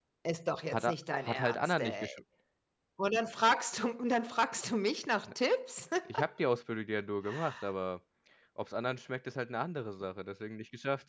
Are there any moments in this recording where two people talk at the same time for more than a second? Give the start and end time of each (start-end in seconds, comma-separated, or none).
0.7-2.1